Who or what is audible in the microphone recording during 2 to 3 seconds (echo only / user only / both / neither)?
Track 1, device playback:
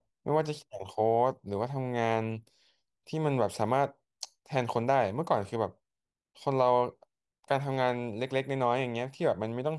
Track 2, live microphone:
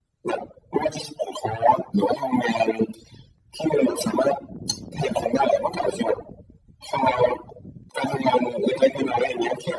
echo only